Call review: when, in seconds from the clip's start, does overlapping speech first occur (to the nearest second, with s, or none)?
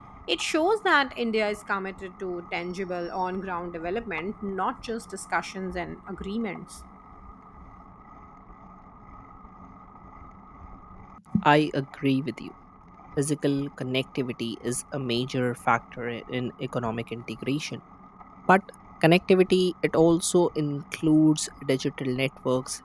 none